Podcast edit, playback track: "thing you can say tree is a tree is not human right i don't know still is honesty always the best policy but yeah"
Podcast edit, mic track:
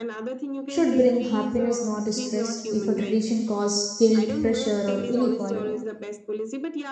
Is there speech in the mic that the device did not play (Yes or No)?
Yes